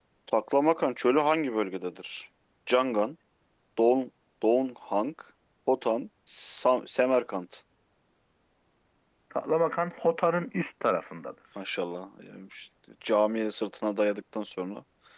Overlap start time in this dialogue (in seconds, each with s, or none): none